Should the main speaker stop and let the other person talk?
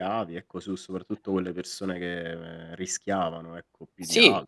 Yes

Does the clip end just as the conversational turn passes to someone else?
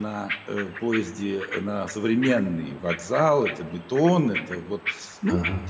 No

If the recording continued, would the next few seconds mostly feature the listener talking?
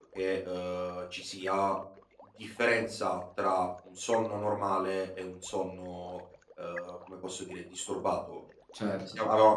No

